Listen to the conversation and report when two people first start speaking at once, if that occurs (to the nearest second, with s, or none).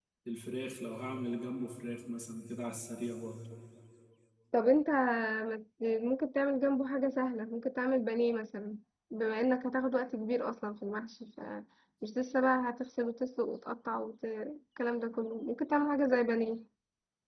none